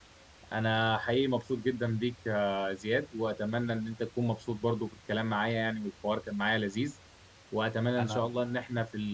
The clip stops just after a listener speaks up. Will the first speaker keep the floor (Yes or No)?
Yes